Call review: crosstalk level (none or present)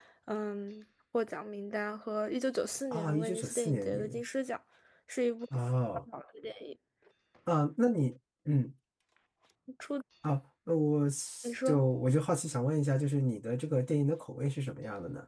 present